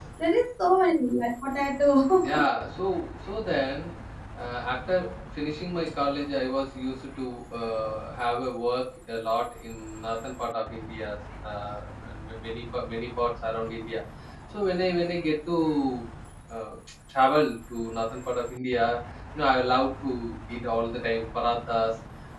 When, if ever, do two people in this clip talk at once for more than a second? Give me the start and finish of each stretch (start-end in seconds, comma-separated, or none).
none